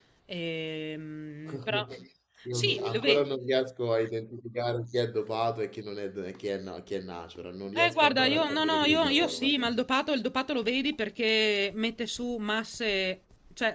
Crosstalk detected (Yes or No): Yes